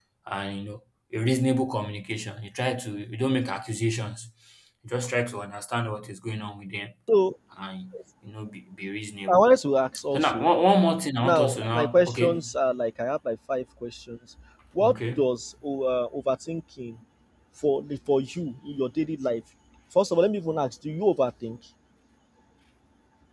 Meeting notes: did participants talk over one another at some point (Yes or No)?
Yes